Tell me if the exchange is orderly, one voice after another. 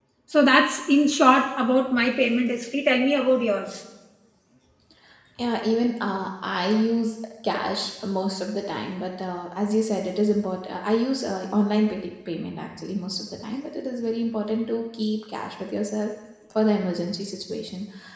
Yes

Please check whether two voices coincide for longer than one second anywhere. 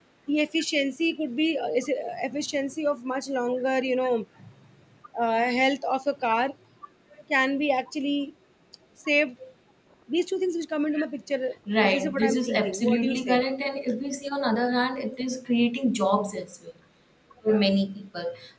Yes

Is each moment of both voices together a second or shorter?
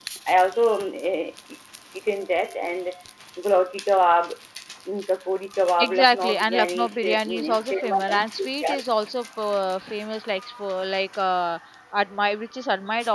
No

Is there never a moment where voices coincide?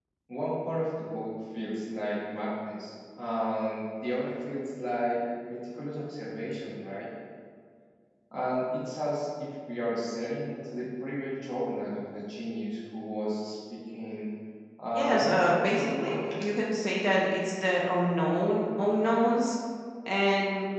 No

